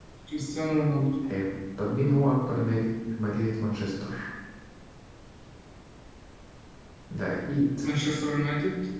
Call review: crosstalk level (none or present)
none